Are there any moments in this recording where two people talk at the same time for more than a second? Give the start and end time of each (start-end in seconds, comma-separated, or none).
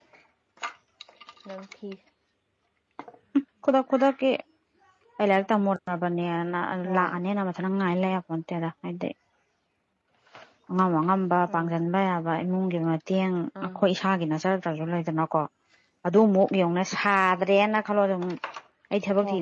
none